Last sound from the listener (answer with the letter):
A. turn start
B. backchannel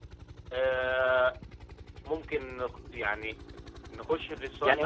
A